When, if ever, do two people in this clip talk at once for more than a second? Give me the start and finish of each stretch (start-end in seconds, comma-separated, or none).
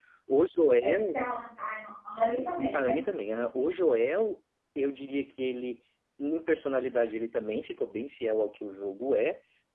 none